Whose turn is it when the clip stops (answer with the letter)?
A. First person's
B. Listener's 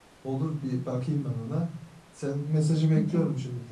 A